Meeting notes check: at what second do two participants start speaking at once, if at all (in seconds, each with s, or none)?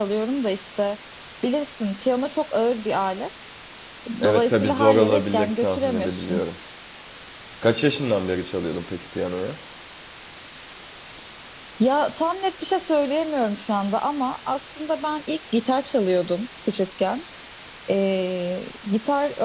4.2 s